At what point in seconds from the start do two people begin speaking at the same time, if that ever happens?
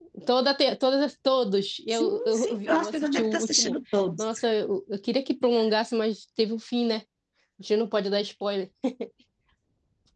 2 s

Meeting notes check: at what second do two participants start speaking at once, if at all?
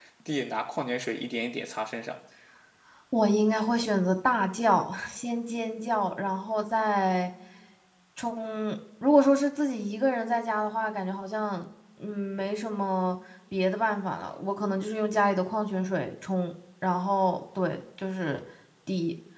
none

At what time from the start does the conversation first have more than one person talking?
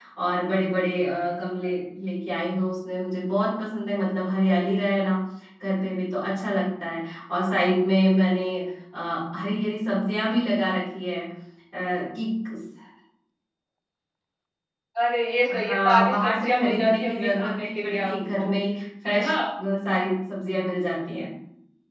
16 s

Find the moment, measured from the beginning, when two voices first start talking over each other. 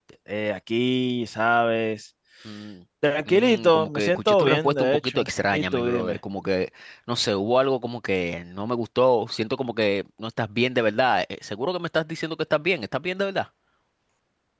3 s

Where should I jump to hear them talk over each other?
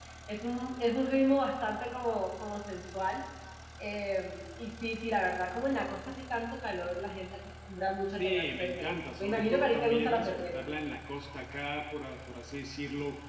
8 s

